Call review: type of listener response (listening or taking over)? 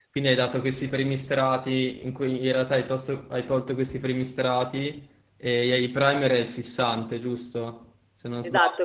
taking over